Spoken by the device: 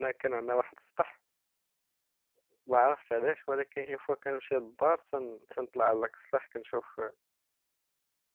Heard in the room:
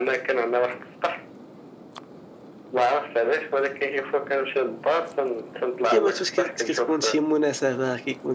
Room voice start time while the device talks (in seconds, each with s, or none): 5.9 s